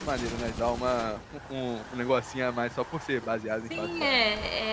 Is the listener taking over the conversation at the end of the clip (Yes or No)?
Yes